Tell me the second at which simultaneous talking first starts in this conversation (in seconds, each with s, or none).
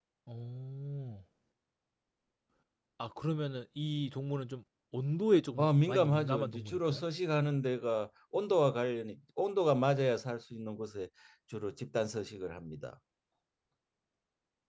5.6 s